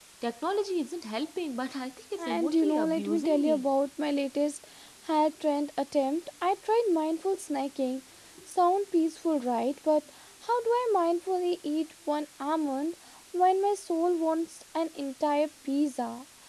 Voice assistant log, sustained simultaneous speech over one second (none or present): present